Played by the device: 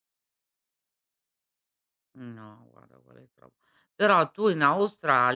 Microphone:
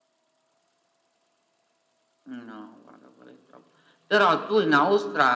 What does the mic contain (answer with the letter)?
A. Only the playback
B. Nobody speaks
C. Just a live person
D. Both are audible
A